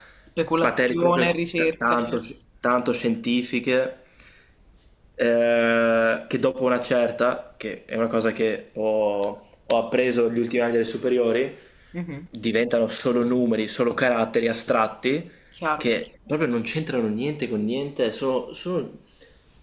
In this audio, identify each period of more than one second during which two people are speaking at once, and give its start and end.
0.6-2.2

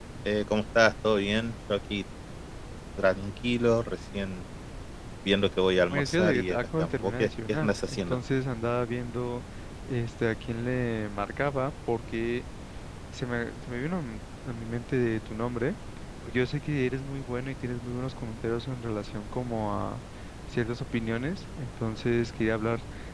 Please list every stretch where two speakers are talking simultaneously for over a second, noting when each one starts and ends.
5.9-8.2

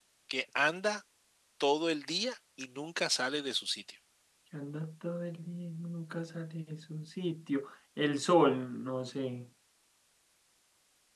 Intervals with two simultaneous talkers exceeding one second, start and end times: none

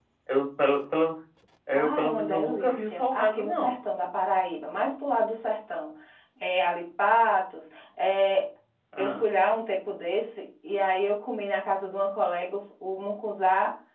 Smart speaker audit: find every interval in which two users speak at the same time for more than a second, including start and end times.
1.8-3.8

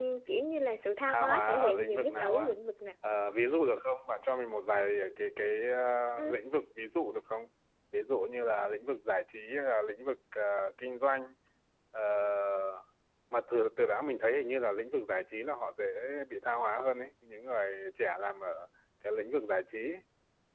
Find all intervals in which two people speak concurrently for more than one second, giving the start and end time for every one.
1.0-2.5

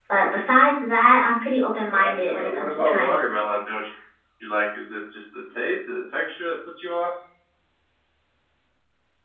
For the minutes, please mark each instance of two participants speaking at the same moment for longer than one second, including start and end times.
1.9-3.4

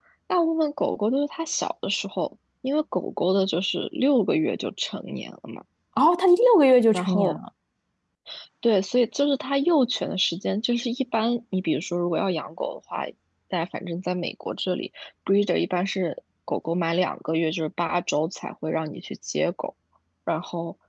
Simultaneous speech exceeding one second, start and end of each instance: none

